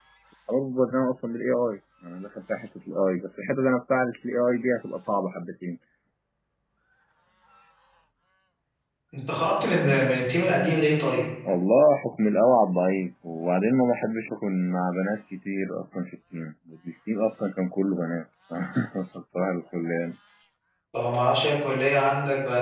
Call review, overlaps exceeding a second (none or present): none